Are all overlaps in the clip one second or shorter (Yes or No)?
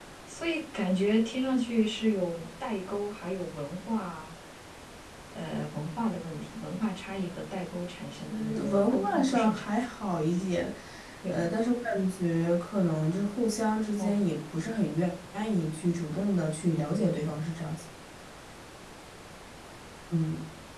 No